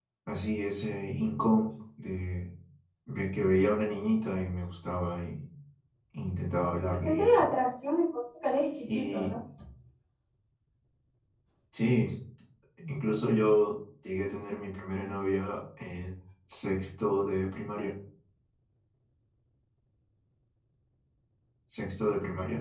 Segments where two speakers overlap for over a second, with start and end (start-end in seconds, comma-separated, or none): none